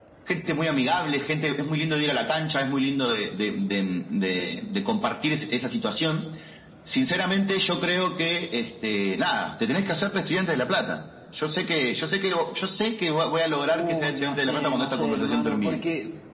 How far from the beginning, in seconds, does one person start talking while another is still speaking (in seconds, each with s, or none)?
13.7 s